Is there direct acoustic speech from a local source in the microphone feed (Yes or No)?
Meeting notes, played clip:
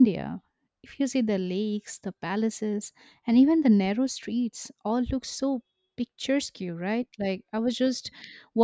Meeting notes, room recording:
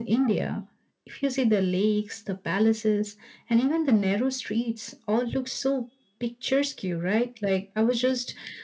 No